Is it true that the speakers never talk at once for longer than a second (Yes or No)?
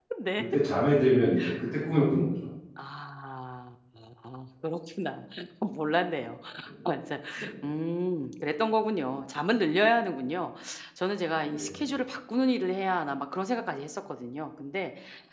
Yes